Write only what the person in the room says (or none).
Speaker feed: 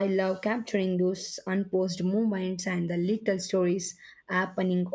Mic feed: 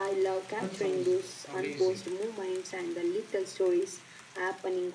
That sounds amazing.